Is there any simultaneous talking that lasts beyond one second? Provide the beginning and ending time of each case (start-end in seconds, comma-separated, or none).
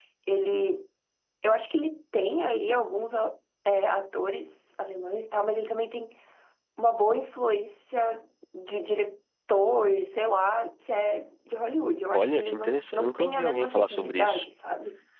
12.1-14.5